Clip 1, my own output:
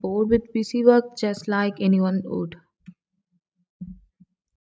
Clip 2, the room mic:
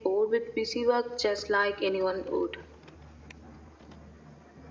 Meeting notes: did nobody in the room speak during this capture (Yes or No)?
Yes